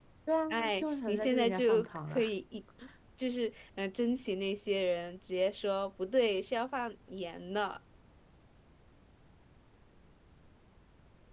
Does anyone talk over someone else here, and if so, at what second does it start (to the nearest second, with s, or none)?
1 s